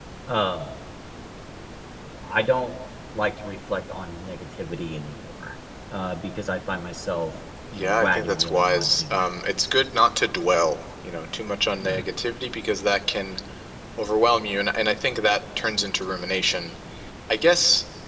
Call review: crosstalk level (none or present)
present